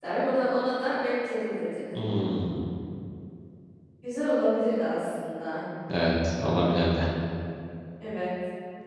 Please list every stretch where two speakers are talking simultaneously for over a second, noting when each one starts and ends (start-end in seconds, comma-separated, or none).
none